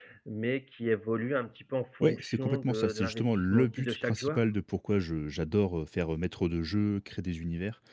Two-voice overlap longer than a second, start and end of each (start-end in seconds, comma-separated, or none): 2.0-4.4